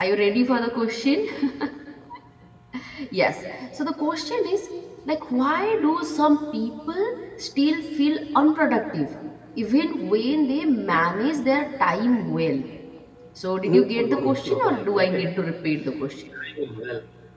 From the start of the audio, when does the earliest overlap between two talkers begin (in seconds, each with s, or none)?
13.7 s